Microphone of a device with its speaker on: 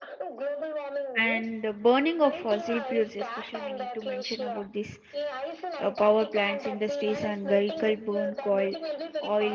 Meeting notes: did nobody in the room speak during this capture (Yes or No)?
No